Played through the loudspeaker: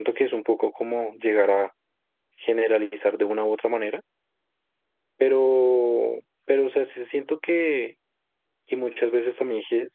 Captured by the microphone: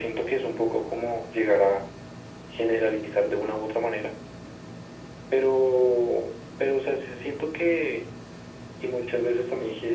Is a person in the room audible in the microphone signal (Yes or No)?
No